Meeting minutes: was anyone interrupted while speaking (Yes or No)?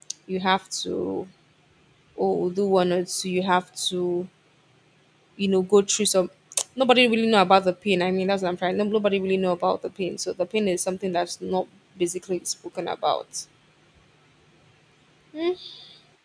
No